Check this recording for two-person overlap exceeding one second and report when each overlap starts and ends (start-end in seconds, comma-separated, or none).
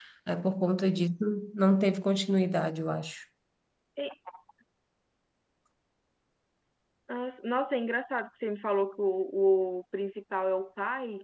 none